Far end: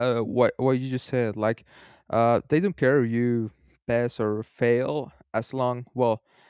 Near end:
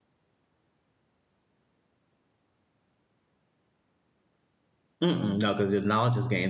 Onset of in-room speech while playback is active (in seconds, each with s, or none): 5.0 s